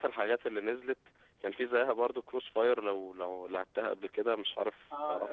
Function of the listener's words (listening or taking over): taking over